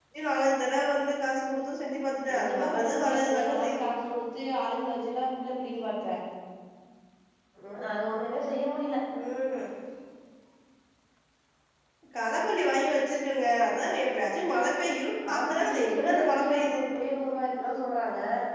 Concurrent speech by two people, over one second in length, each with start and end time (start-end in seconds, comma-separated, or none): 2.3-3.9, 15.3-16.6